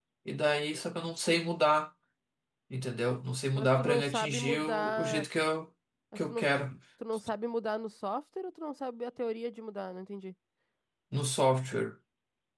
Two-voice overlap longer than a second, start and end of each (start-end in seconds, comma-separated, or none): 3.6-5.2